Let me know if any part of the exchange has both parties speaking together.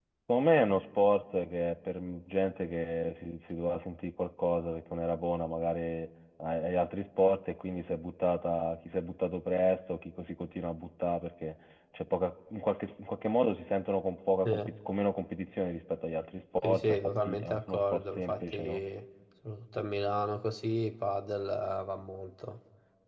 Yes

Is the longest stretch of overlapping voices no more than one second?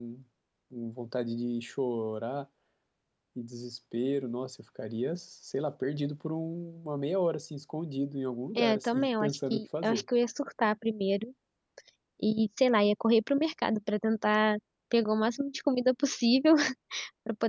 No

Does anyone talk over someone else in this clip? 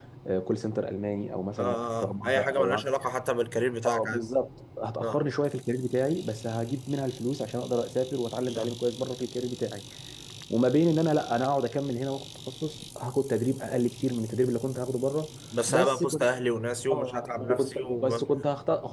Yes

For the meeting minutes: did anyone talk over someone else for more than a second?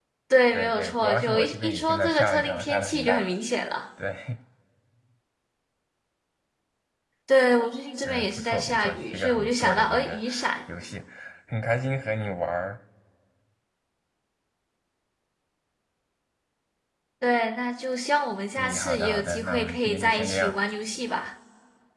Yes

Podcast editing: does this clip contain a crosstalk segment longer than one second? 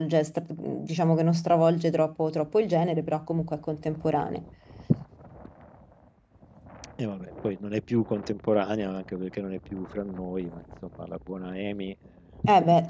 No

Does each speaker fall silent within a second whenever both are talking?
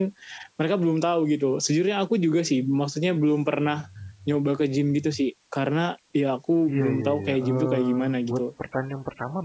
No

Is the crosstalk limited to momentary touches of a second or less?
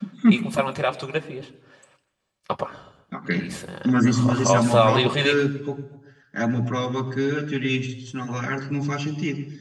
No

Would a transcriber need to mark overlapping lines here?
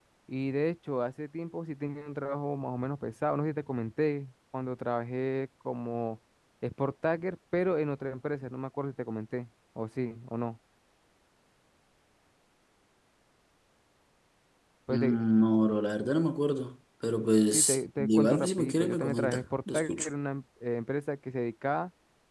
Yes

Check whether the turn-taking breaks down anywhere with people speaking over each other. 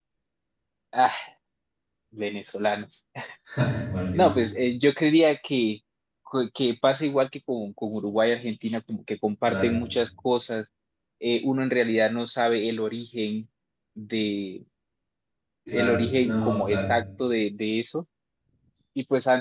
Yes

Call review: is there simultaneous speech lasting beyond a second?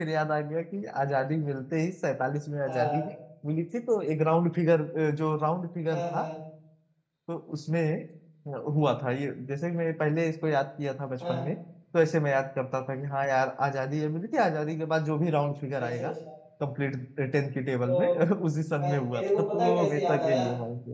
Yes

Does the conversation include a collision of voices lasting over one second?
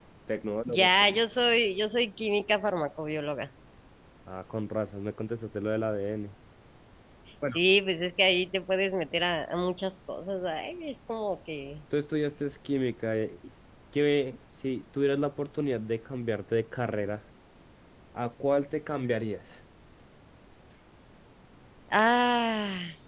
No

